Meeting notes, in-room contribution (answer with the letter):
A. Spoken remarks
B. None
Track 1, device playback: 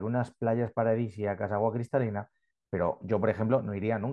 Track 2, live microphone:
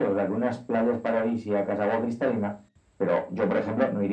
B